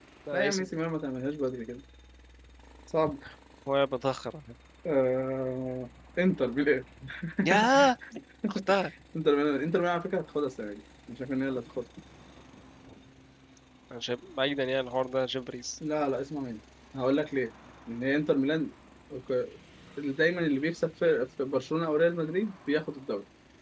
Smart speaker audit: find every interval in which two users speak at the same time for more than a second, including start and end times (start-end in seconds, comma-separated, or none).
none